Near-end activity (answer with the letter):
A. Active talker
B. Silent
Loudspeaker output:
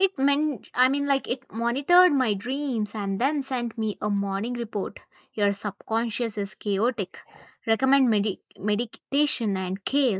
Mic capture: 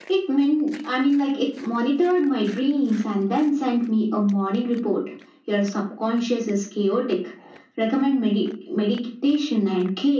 B